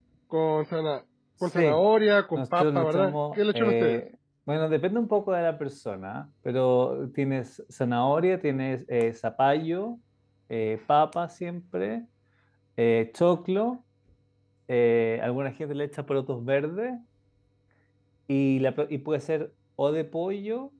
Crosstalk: present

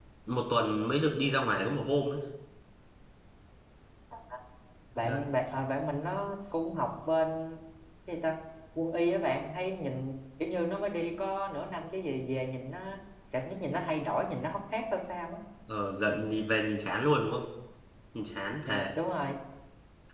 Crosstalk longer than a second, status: none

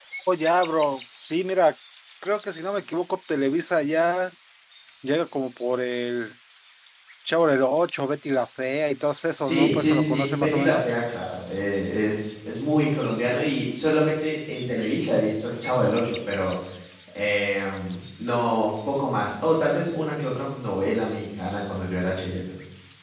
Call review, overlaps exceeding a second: present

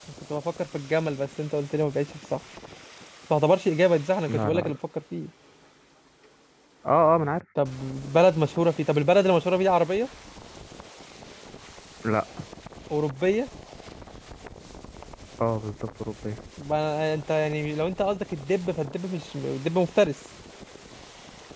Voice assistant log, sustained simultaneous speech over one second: none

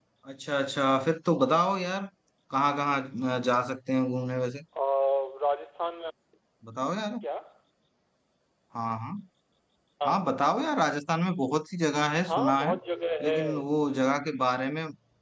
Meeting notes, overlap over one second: none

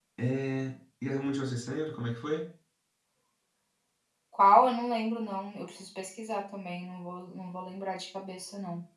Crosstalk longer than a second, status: none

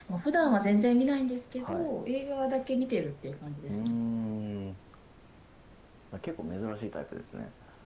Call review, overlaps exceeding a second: none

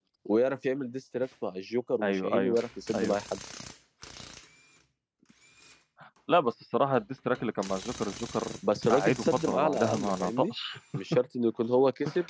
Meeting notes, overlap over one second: present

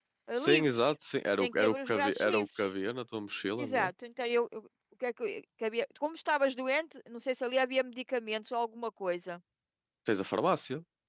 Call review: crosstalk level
present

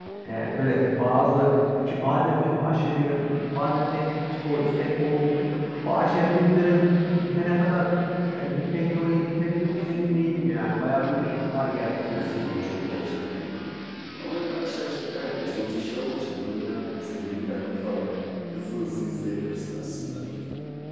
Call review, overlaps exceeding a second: none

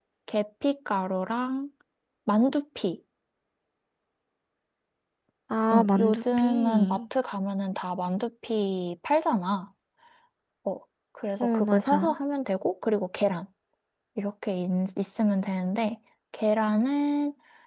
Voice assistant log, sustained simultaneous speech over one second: present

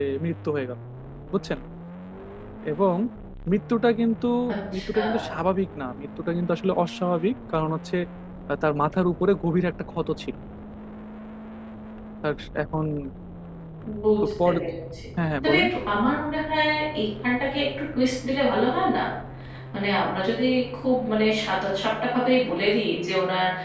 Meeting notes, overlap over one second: none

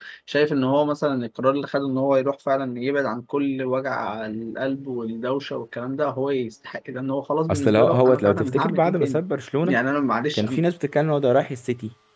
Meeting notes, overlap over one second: present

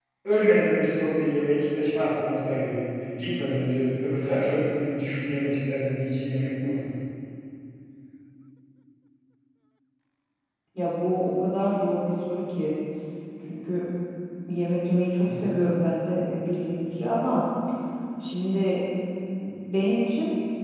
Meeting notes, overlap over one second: none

